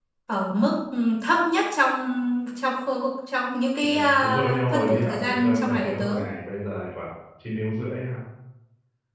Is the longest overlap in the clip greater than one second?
Yes, from 3.8 s

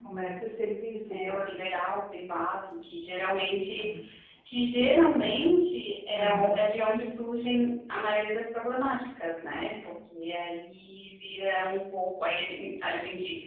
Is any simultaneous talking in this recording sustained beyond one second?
No

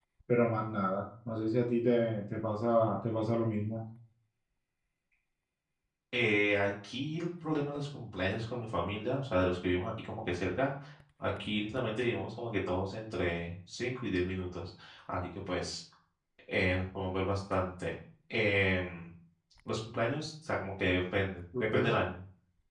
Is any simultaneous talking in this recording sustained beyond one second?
No

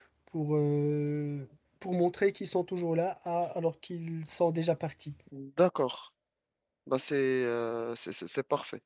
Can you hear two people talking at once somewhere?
No

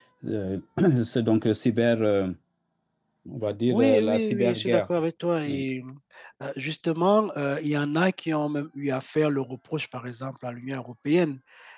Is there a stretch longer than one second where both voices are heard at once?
Yes, from 3.7 s

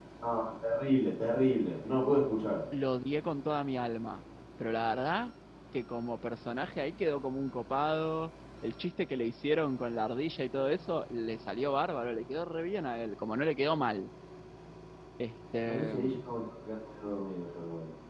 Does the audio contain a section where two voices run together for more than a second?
No

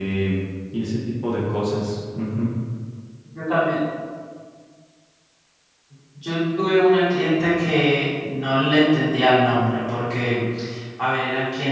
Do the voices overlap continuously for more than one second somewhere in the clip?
No

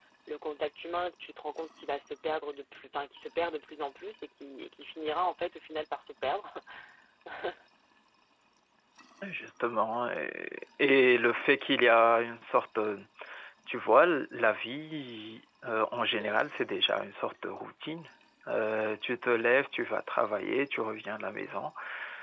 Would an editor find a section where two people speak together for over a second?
No

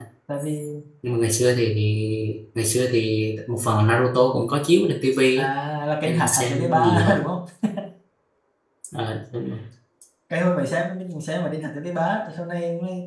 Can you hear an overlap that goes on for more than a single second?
Yes, from 6.0 s

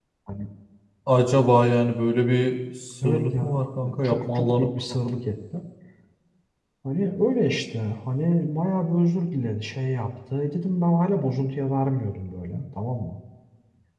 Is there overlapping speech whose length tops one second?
Yes, from 3.0 s

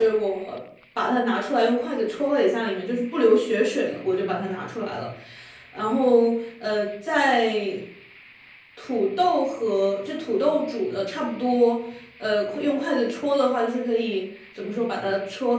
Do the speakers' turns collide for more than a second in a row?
No

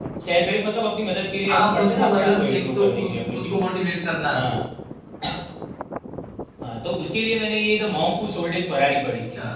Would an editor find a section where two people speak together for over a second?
Yes, from 1.5 s

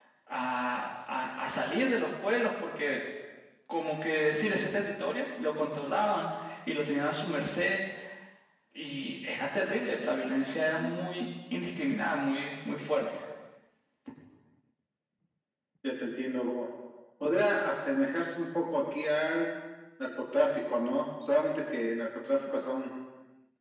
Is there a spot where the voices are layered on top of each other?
No

